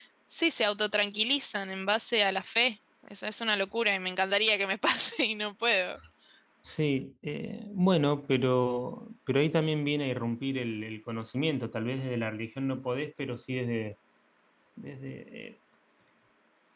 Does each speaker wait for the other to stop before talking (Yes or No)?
Yes